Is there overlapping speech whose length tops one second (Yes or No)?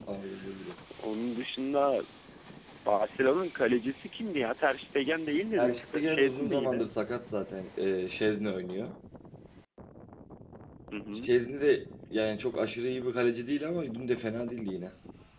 Yes